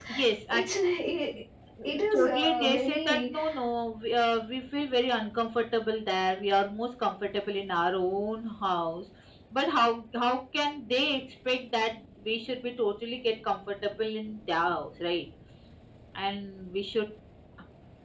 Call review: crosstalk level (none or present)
present